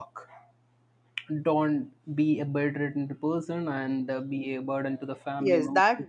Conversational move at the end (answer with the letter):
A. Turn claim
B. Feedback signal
A